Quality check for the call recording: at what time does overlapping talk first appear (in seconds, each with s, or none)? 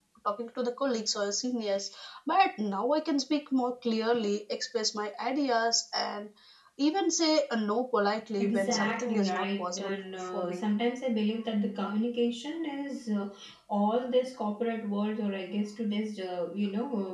8.4 s